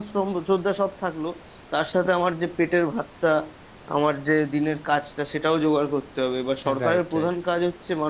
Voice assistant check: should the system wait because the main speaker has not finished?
Yes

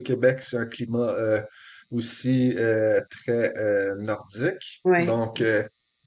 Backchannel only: Yes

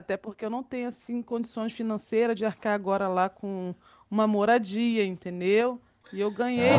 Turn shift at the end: Yes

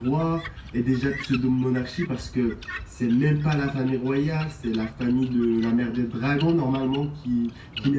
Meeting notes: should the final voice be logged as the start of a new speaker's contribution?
No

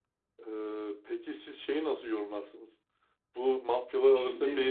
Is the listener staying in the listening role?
Yes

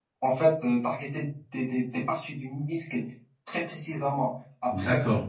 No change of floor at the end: Yes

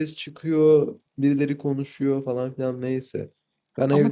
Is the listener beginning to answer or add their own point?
Yes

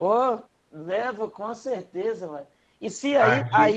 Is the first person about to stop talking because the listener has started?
No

